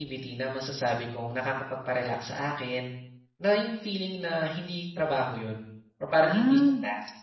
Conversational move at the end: listening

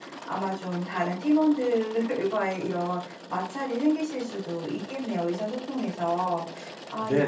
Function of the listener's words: taking over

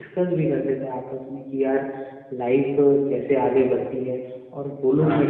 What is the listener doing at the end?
listening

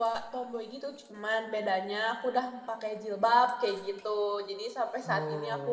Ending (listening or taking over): listening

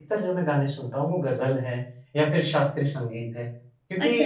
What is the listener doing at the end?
listening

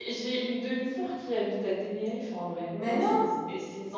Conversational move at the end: listening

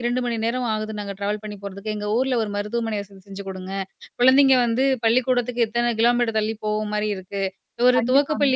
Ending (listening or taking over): listening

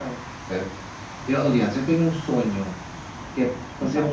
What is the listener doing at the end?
listening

